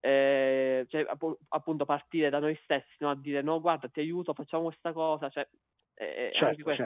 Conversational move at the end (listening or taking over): taking over